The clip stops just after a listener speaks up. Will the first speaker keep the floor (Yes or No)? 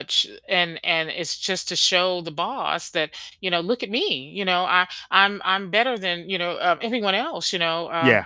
Yes